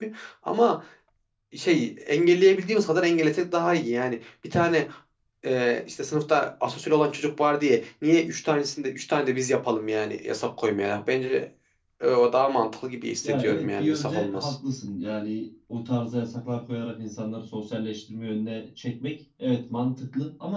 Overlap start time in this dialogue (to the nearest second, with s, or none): 13 s